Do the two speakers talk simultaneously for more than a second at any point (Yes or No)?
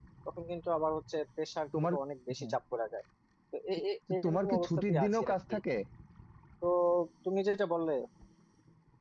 Yes